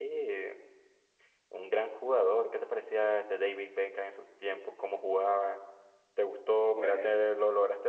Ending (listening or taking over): listening